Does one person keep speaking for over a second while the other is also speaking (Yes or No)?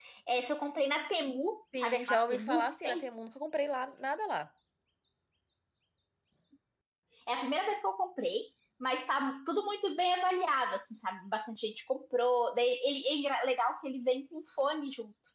Yes